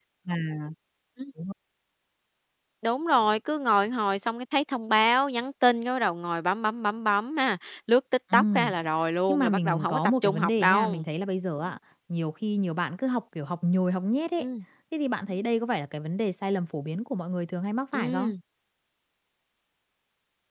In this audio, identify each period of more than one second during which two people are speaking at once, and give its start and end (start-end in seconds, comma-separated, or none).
9.3-11.0